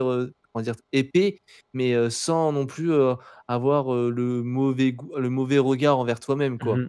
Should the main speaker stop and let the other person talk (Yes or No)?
Yes